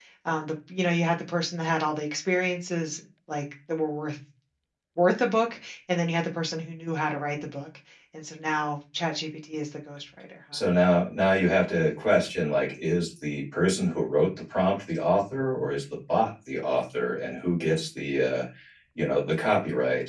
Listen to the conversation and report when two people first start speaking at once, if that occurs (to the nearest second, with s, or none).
none